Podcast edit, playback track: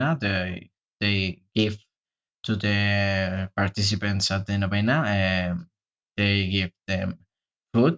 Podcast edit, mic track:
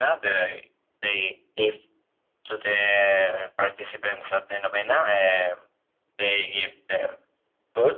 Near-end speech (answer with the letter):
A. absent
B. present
A